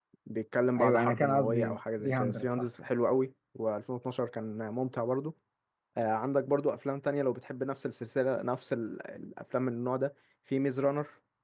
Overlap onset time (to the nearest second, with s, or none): 1 s